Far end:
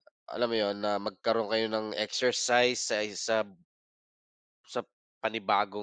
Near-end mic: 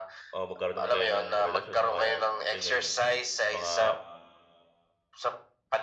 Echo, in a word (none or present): present